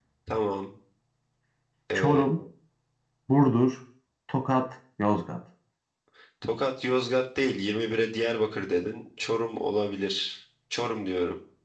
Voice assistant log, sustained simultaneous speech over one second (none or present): none